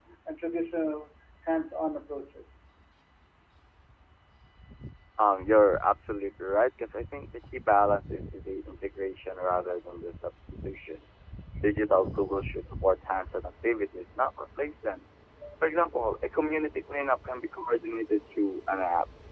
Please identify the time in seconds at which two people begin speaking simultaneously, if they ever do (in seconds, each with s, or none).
none